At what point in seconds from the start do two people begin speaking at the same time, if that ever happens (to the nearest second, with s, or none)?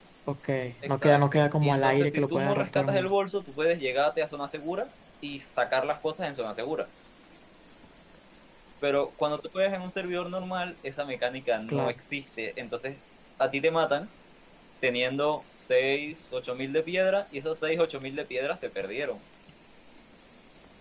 1 s